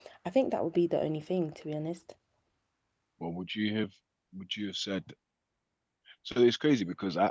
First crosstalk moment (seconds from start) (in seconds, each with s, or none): none